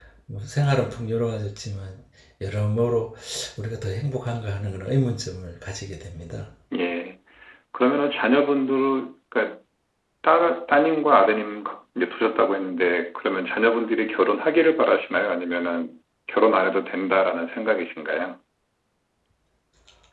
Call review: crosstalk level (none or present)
none